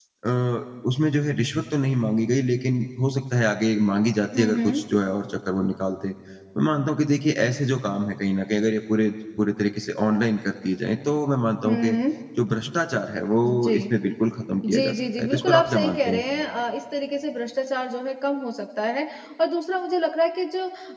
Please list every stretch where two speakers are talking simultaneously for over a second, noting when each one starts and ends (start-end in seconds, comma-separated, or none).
14.7-16.2